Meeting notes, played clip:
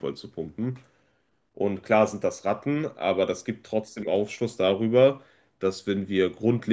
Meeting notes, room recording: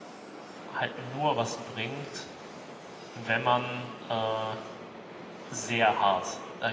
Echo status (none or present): none